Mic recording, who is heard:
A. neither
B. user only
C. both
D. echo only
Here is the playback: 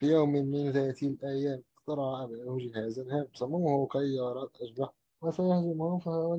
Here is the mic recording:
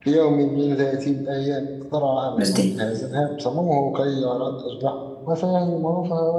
C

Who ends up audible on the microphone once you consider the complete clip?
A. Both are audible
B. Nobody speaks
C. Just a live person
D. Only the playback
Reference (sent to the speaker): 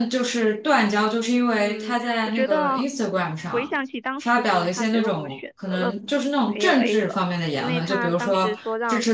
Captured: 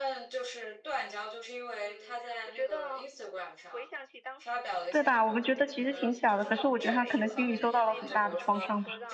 A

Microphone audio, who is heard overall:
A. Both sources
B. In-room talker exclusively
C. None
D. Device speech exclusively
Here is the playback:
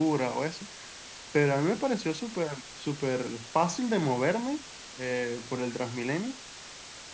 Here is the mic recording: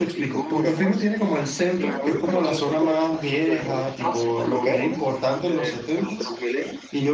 A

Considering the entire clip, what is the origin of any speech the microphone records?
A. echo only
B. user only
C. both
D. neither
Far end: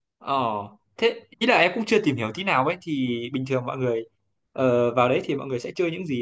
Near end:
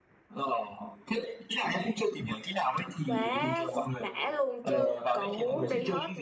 C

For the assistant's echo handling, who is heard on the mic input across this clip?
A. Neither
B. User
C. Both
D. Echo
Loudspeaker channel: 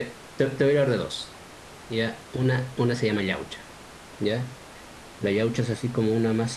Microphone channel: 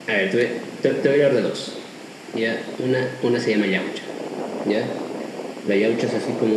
D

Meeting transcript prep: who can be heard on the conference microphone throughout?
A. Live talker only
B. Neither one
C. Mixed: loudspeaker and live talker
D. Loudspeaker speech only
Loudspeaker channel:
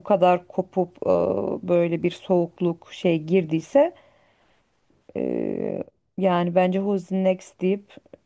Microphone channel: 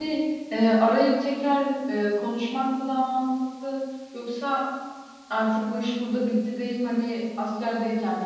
A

